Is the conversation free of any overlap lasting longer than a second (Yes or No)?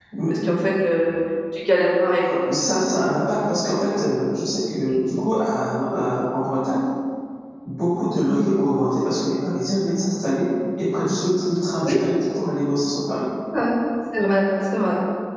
Yes